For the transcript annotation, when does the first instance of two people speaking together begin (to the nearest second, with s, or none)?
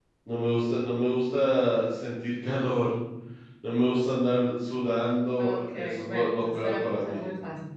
5 s